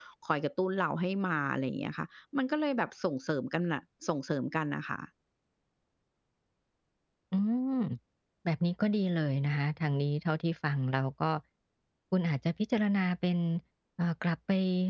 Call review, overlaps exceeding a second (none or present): none